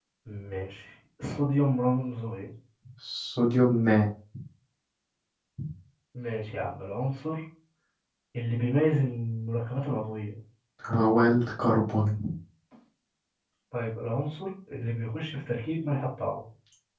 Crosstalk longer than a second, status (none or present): none